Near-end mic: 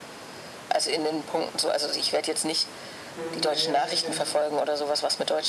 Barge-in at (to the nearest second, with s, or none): 3 s